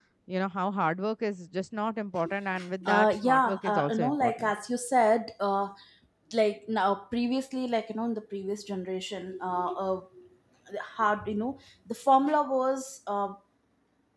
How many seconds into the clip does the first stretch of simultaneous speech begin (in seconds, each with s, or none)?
2.8 s